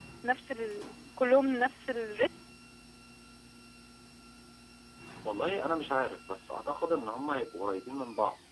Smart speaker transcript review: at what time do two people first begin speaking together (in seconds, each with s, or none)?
none